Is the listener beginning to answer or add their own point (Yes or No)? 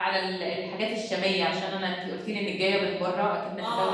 No